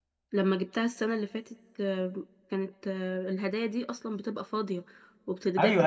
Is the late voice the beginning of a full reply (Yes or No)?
Yes